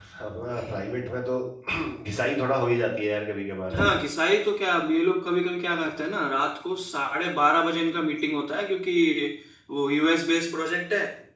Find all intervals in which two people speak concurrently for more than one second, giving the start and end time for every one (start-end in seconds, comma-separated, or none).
none